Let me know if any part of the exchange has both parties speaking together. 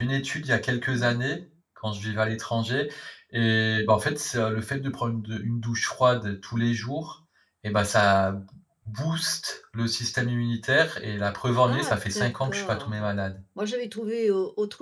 Yes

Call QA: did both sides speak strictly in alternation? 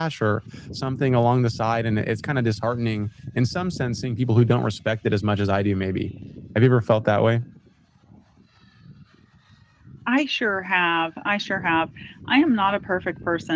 Yes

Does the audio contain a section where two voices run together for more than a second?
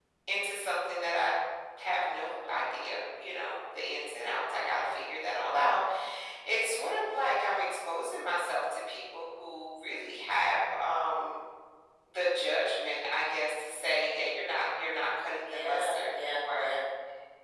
Yes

